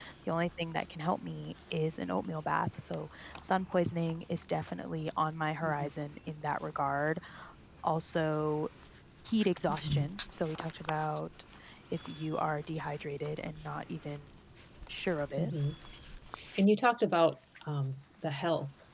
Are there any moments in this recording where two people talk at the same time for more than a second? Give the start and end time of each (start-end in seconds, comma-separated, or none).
none